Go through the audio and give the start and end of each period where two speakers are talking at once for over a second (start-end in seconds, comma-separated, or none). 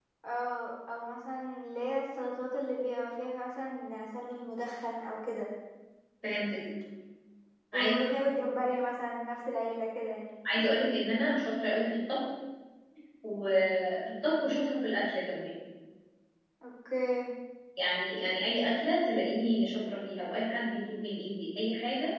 none